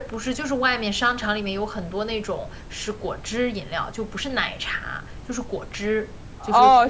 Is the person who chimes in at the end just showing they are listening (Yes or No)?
No